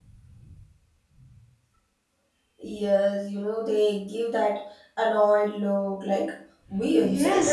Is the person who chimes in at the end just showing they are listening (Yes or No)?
No